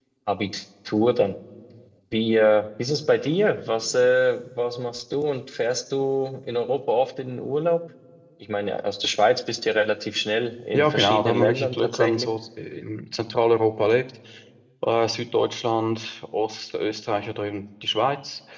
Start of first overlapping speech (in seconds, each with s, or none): 10.7 s